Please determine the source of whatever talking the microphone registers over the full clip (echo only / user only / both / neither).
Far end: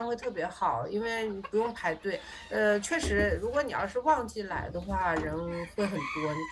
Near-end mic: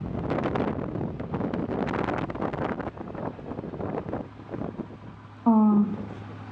user only